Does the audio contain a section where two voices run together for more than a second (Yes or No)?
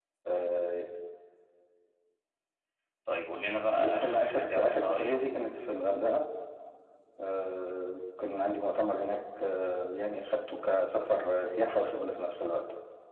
Yes